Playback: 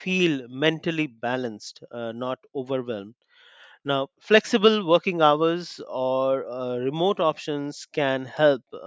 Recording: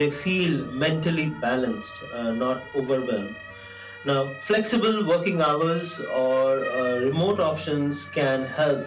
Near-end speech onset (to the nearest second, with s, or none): none